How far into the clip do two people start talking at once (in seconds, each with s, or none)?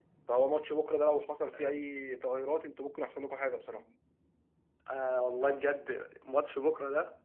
none